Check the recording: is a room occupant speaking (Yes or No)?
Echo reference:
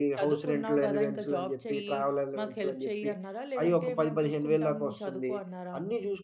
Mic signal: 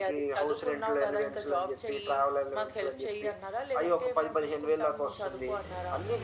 No